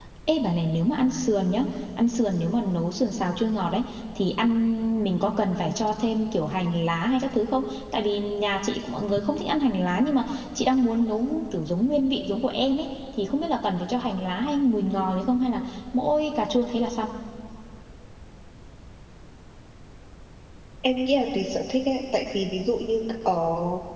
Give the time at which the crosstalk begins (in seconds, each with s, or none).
none